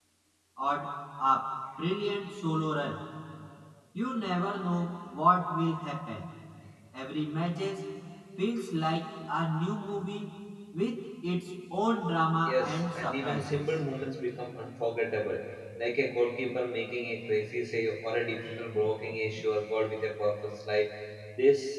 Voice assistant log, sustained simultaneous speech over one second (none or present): present